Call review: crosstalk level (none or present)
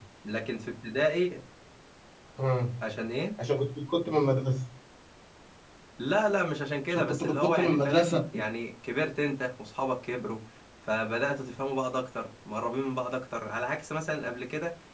present